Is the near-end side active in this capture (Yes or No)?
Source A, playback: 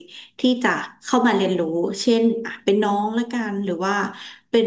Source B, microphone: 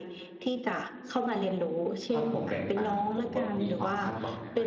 Yes